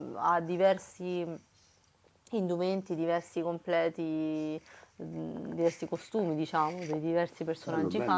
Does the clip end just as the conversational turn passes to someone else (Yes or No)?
Yes